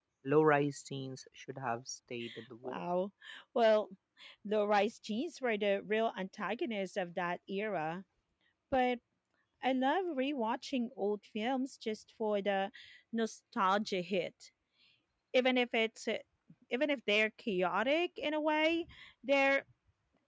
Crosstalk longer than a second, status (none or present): none